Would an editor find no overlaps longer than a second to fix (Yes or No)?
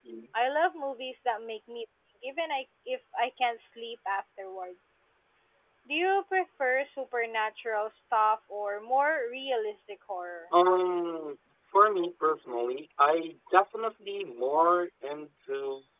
Yes